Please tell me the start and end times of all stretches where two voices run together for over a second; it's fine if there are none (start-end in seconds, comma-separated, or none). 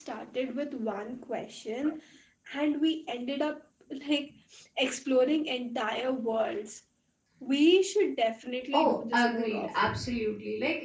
8.7-10.0